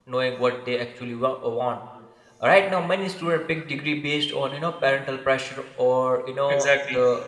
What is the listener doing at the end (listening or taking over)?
listening